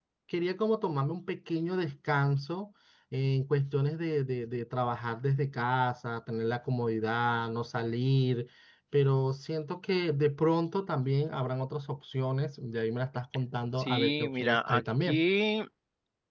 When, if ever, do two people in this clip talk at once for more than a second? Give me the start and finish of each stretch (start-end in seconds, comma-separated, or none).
13.8-15.2